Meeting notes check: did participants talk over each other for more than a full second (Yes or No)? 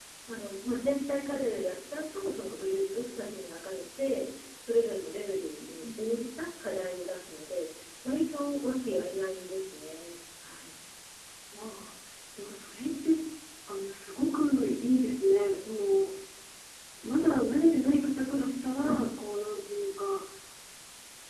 No